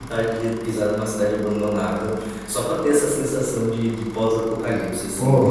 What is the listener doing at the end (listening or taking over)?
taking over